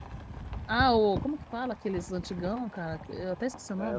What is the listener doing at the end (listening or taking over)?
taking over